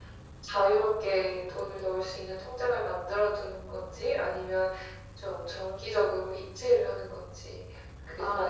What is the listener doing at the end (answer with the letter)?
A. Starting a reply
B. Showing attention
A